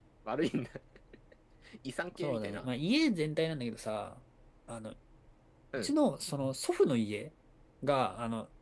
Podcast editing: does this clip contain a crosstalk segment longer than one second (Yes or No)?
No